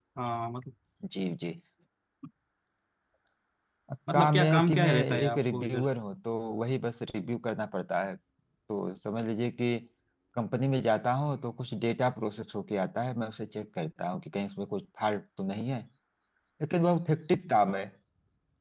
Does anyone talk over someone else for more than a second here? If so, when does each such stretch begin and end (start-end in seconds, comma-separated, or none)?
4.1-5.9